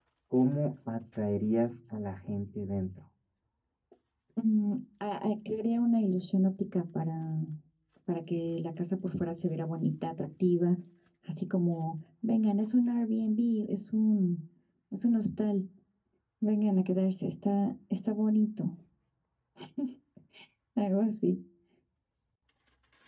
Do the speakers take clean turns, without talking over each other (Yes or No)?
Yes